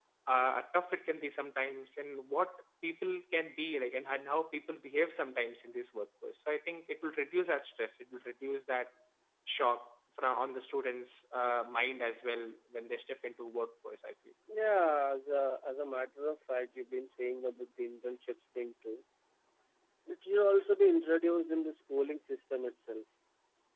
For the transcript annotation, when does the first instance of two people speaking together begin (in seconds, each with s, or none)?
none